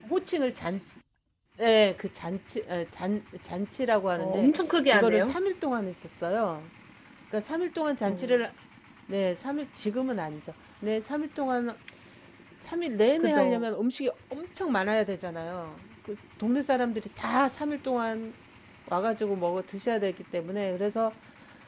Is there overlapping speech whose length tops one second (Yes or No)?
No